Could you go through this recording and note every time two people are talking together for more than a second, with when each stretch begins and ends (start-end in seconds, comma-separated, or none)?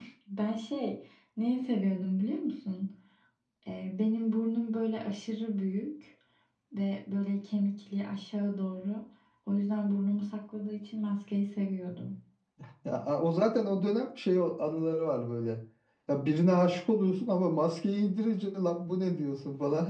none